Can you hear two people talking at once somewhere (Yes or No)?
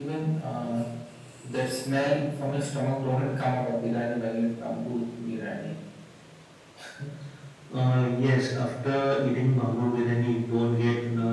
No